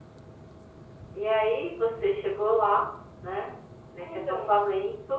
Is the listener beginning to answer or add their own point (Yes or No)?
No